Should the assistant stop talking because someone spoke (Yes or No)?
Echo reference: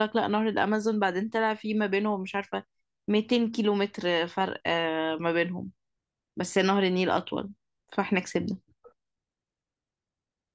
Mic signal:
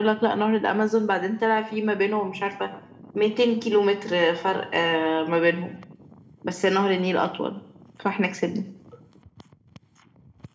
No